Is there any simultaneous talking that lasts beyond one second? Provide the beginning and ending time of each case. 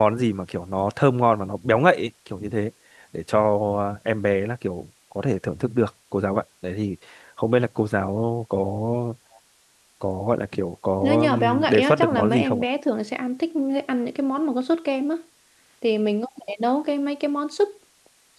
11.0-12.6

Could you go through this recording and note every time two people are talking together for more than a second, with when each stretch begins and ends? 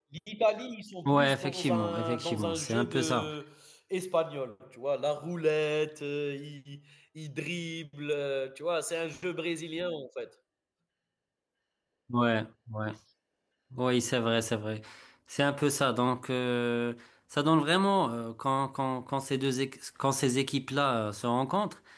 1.1-3.3

